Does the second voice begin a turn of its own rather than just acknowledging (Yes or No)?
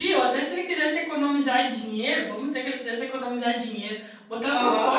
No